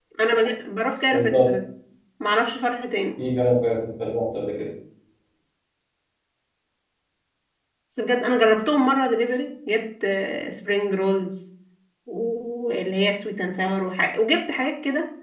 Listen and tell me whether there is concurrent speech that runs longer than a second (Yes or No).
No